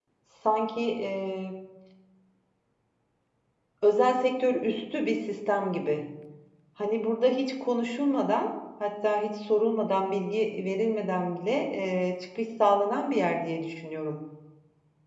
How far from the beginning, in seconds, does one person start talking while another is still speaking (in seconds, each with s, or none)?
none